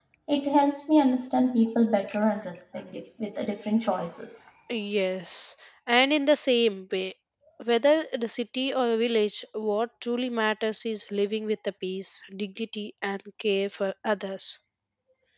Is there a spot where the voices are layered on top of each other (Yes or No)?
No